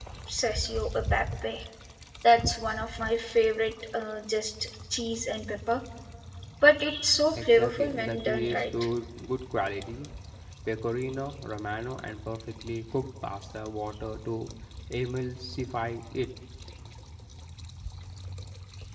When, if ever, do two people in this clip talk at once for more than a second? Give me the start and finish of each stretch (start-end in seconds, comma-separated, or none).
7.4-8.6